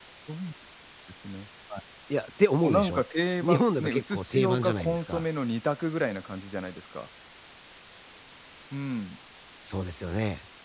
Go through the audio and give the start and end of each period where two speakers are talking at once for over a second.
3.4-5.2

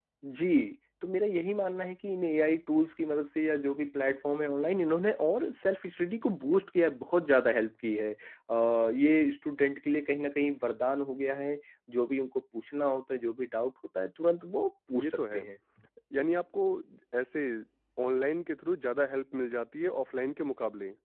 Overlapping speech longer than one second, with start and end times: none

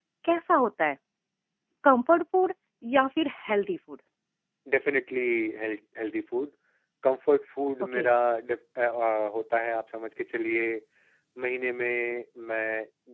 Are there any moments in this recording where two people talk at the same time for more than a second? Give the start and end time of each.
none

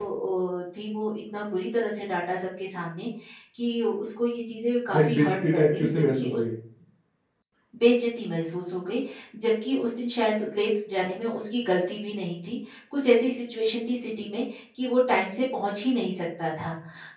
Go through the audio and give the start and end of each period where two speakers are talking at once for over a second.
4.9-6.4

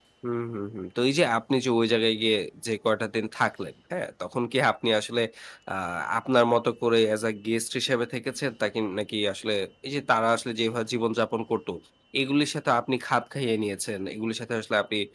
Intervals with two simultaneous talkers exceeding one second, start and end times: none

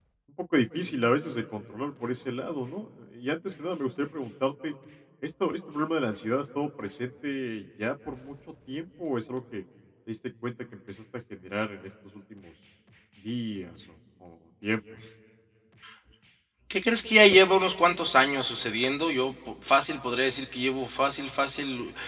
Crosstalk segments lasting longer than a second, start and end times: none

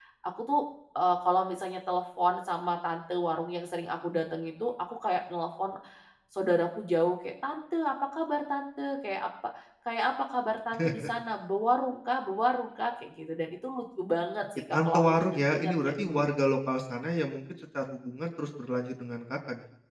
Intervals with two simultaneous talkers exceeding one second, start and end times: 14.7-16.3

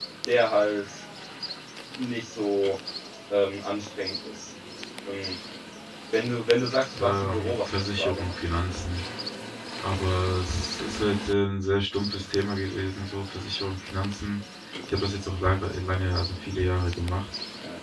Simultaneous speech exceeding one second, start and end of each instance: 7.0-8.3

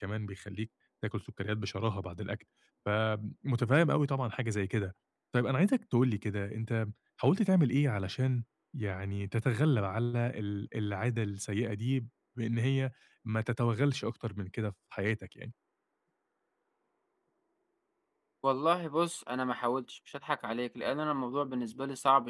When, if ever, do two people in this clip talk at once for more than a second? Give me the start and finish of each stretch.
none

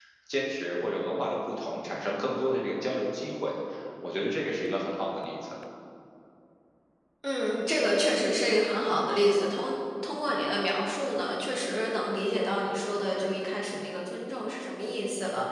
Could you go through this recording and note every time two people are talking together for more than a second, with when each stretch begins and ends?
none

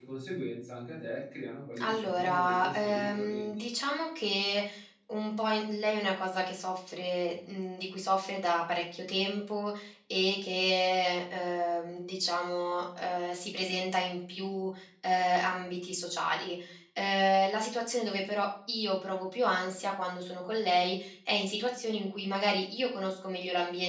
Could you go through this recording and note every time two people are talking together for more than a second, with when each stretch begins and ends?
1.8-3.5

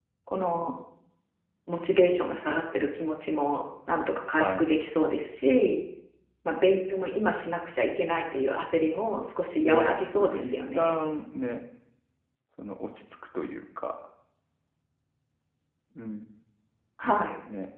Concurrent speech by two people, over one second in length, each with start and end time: 9.6-11.0

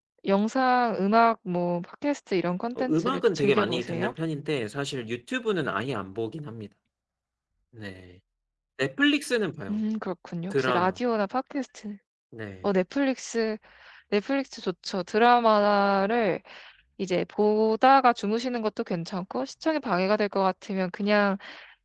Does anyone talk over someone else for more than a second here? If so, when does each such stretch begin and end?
2.8-4.1

